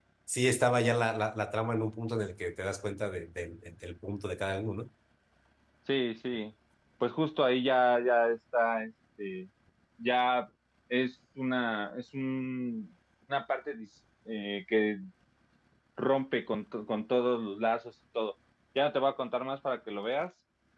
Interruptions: none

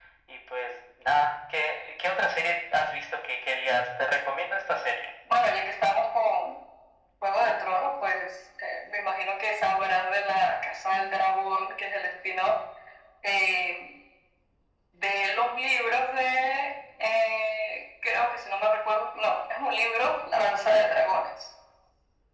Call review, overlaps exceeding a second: none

